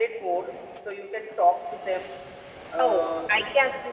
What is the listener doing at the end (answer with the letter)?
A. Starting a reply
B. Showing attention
A